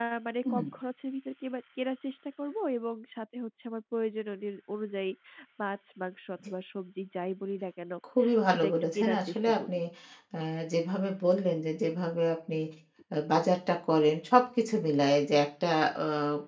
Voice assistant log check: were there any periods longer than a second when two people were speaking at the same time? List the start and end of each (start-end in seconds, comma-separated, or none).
8.5-9.8